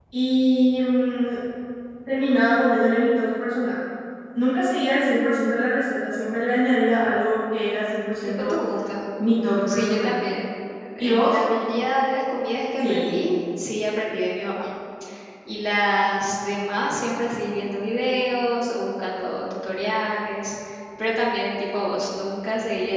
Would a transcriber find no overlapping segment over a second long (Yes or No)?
Yes